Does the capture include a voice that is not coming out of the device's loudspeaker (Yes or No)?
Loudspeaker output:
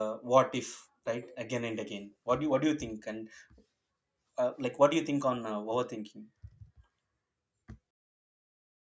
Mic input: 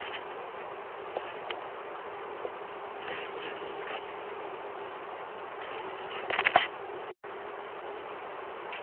No